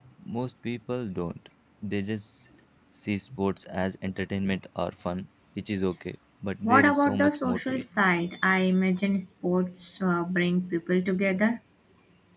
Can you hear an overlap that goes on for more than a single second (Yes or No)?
Yes